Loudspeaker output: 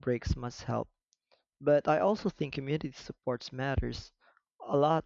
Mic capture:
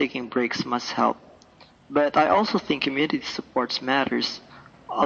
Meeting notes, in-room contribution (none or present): none